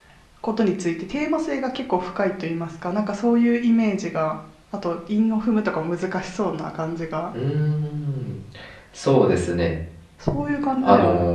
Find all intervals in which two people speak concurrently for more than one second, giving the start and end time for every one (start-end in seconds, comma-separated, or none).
none